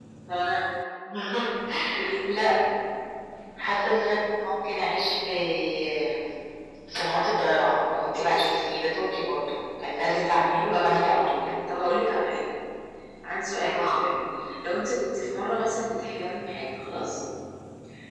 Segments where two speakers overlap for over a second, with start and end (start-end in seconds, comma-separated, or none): 10.0-11.4